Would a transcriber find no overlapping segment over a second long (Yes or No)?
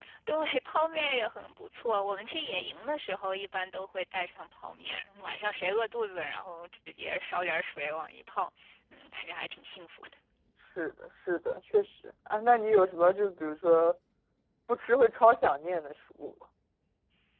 Yes